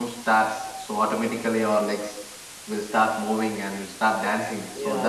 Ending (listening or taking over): taking over